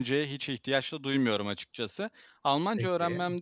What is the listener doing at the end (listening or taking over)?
listening